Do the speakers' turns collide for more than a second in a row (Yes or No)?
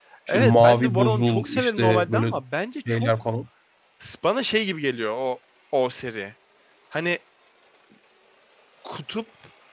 Yes